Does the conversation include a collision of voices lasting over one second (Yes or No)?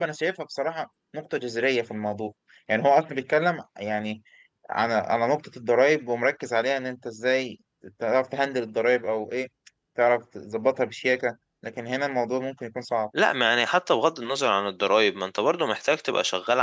No